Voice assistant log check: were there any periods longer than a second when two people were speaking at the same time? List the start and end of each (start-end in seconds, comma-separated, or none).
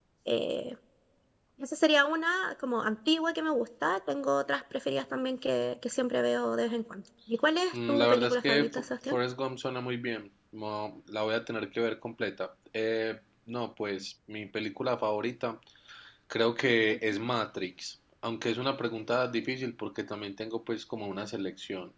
7.7-9.2